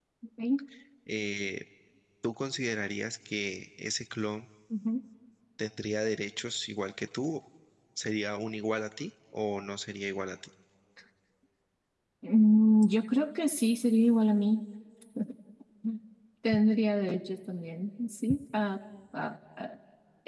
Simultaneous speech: No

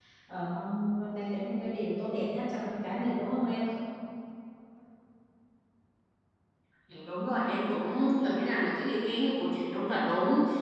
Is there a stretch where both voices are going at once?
No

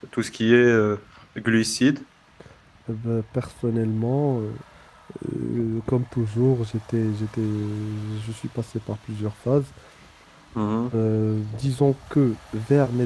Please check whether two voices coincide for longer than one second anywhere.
No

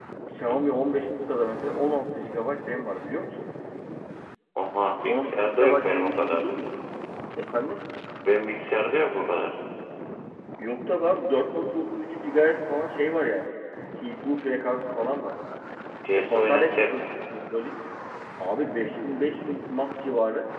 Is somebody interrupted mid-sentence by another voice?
Yes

